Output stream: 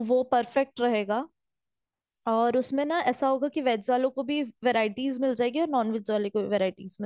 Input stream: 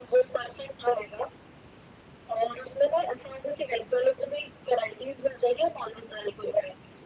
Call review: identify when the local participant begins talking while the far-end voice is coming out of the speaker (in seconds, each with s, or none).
none